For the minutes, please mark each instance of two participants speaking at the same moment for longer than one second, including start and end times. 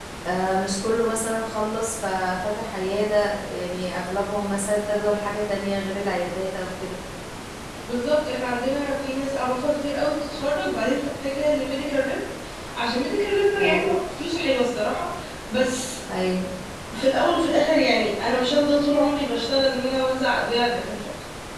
none

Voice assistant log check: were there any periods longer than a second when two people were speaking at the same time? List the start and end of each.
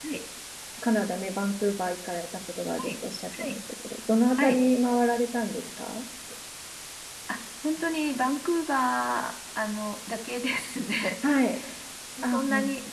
none

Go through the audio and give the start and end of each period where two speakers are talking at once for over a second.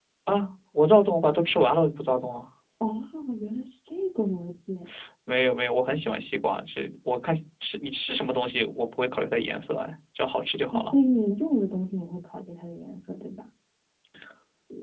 none

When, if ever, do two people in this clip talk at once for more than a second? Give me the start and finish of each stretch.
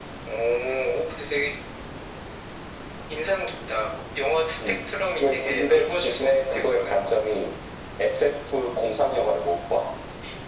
5.2-7.1

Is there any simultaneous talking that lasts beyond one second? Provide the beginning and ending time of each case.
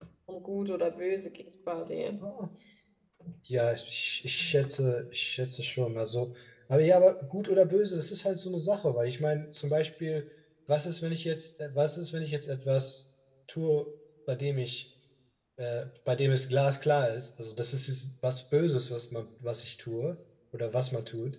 none

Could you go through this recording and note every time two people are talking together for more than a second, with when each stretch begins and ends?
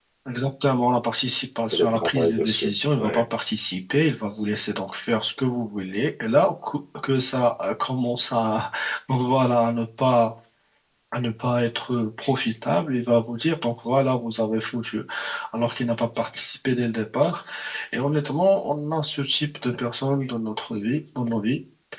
1.7-3.2

